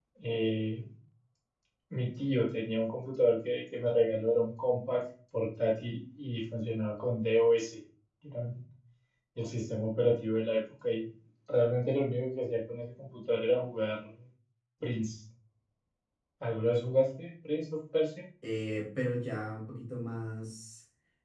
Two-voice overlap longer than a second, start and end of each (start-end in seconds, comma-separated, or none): none